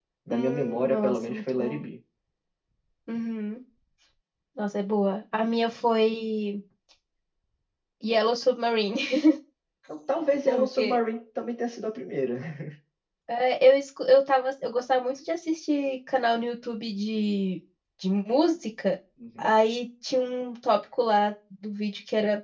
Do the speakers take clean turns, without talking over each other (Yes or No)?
No